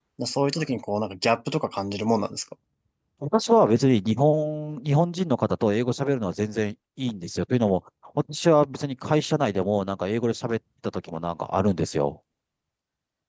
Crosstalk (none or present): none